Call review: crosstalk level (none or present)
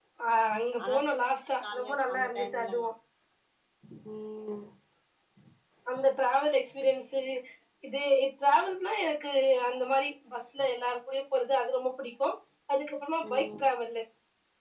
present